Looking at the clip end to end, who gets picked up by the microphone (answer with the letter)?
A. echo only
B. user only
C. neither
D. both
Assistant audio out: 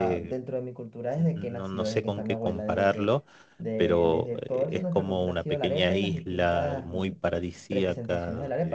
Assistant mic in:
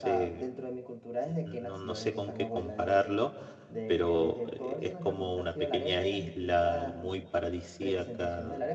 A